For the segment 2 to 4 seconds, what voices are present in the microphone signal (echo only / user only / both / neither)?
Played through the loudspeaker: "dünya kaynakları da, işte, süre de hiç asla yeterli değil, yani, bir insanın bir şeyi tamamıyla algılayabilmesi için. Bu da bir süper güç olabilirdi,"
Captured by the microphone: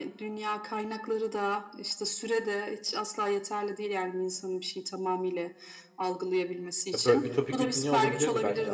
echo only